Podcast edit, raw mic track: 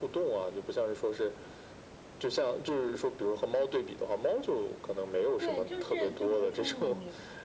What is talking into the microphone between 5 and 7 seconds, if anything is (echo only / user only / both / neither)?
both